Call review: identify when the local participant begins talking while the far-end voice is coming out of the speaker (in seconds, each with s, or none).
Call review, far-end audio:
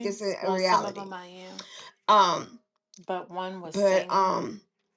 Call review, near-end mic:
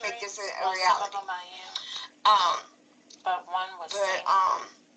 none